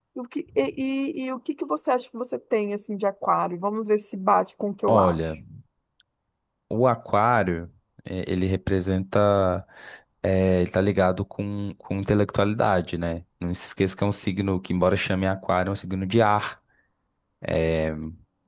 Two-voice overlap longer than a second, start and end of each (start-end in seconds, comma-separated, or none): none